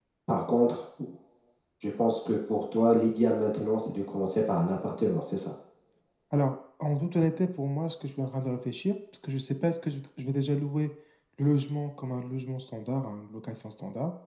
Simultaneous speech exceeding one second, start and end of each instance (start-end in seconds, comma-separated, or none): none